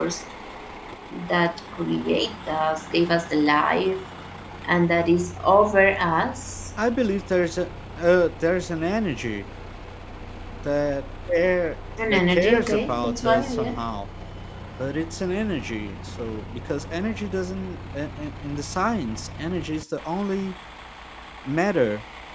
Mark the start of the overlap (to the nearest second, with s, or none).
12 s